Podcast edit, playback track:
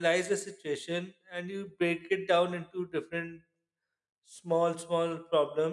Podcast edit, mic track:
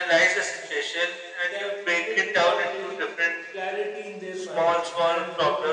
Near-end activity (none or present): present